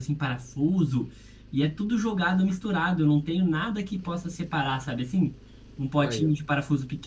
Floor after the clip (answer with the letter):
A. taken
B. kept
B